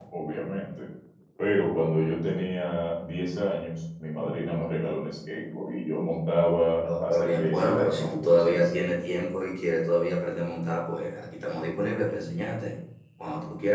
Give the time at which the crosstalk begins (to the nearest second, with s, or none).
7 s